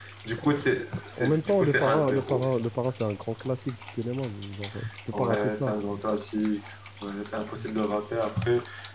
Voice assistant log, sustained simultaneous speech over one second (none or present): present